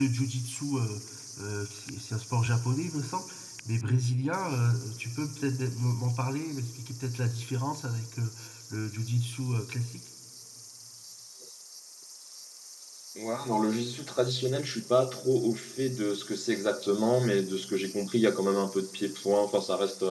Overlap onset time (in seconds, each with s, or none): none